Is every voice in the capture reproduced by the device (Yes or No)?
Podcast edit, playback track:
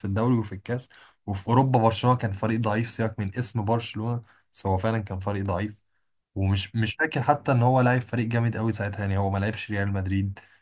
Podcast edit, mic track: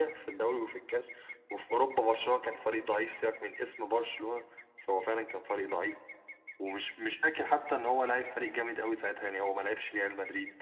Yes